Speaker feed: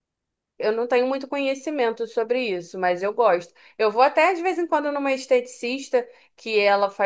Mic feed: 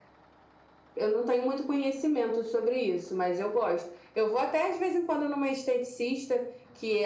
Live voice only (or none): none